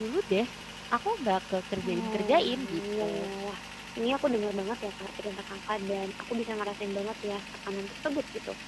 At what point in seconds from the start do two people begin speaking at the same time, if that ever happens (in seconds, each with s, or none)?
1.8 s